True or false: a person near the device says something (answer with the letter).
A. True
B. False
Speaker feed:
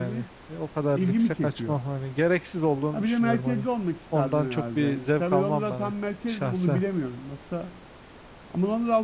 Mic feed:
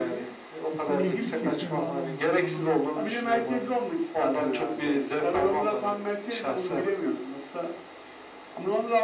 A